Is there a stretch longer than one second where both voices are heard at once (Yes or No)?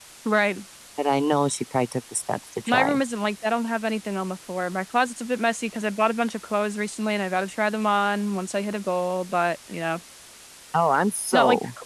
No